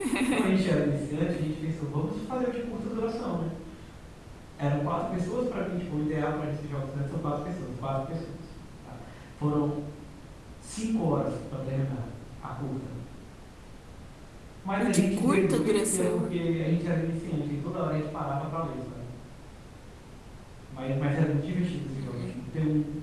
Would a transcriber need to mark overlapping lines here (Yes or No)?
Yes